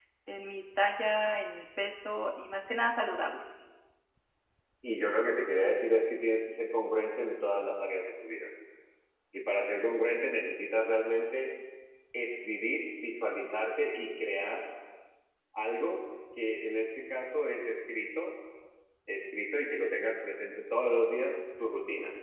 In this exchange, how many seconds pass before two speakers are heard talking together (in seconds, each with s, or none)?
none